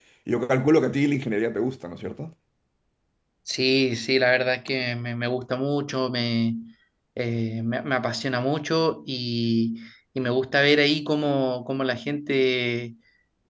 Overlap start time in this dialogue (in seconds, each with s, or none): none